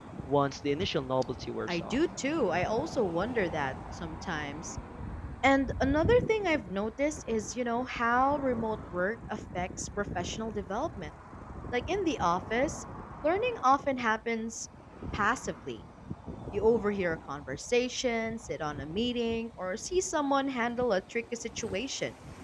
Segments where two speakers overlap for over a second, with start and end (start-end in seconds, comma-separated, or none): none